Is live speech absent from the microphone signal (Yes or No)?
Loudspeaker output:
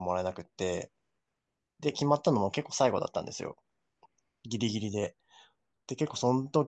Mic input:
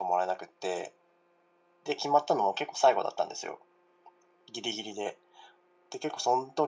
Yes